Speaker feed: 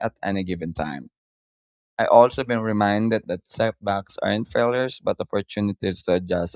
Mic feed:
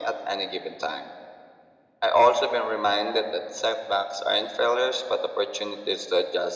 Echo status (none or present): present